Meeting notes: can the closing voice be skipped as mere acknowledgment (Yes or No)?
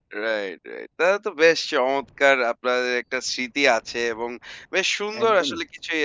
Yes